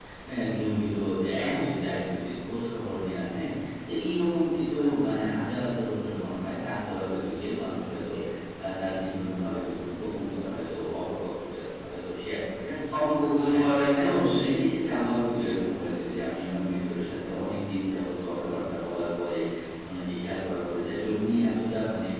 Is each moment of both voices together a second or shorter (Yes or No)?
Yes